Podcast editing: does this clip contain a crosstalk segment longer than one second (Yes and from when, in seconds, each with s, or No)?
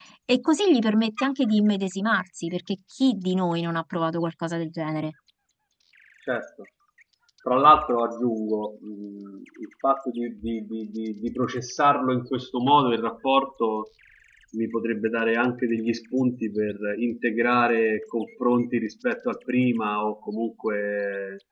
No